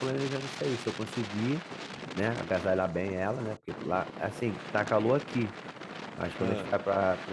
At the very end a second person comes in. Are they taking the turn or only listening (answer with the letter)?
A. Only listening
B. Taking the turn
A